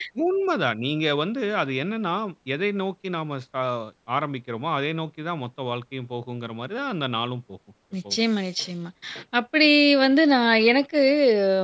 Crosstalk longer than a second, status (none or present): none